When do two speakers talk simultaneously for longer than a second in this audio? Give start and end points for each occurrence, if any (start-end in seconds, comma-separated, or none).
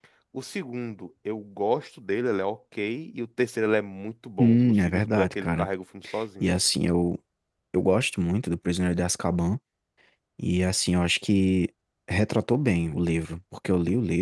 4.4-5.7